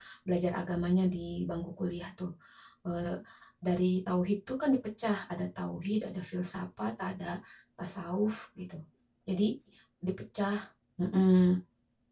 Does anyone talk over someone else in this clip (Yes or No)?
No